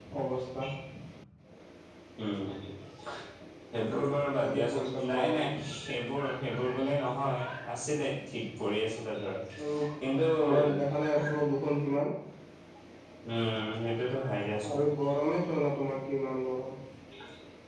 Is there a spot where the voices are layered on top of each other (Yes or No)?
Yes